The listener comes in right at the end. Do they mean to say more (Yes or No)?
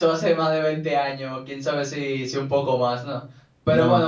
No